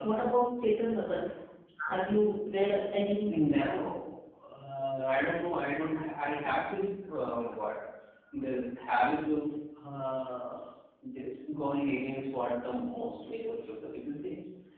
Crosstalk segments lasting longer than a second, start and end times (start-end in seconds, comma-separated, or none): none